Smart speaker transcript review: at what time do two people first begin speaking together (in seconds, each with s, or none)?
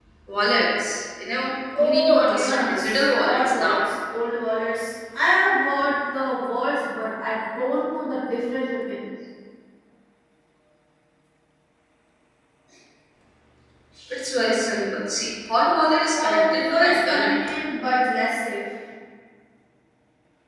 1.8 s